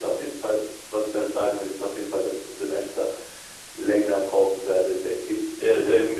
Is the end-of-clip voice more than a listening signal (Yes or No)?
Yes